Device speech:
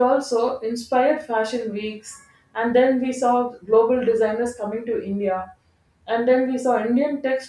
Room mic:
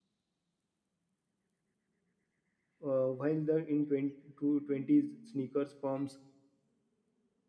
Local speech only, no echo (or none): uh, while the in 20, to 20s sneakers pumps